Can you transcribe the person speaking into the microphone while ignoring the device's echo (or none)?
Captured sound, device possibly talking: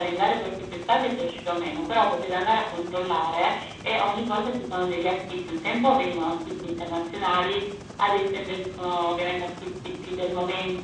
none